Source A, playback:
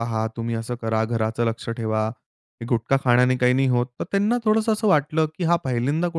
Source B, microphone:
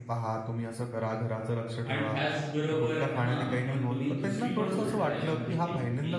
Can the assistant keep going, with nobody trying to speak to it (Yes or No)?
No